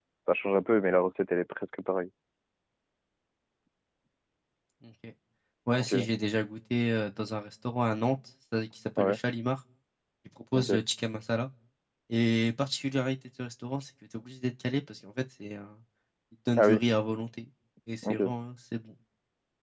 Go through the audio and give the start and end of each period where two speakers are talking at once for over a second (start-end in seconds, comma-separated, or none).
none